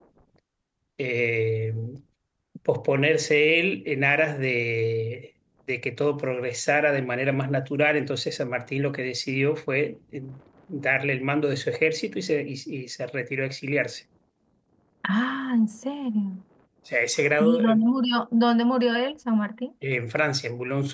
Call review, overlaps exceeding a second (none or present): none